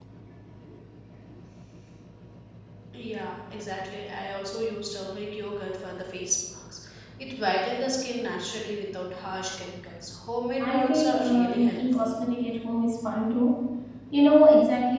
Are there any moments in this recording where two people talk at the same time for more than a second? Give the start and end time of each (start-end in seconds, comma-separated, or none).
10.6-12.1